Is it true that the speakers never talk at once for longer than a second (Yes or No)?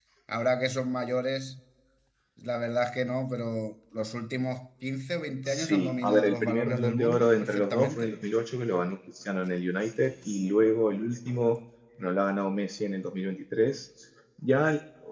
No